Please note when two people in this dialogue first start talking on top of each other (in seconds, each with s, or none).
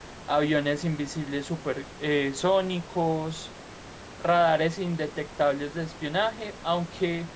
none